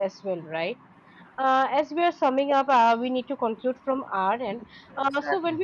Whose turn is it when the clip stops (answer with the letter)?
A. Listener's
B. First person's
B